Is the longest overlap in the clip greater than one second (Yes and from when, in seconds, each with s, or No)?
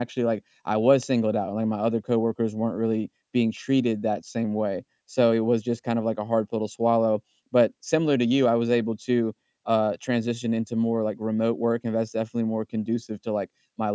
No